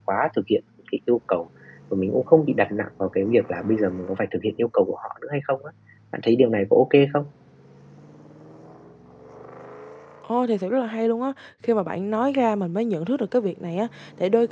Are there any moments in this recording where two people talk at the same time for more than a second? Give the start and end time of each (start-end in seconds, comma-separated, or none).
none